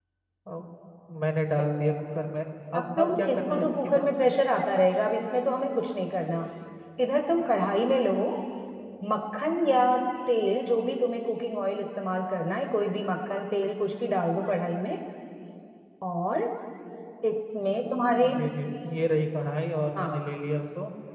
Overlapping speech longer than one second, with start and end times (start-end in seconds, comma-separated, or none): 2.7-4.1